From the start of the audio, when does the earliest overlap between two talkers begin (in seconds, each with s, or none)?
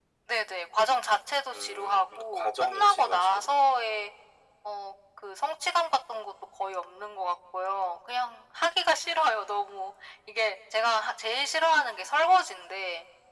1.4 s